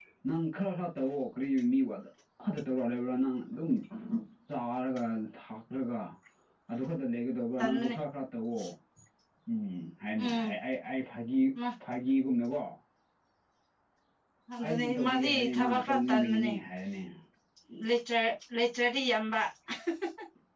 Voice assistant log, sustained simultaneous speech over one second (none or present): present